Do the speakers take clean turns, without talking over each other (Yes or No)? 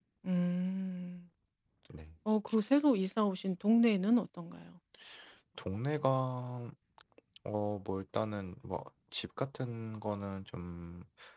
Yes